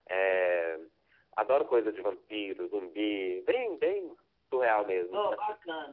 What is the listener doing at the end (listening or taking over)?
taking over